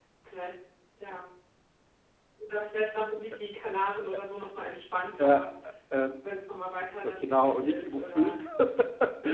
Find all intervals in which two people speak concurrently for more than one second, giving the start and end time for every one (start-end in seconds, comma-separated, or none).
7.0-8.4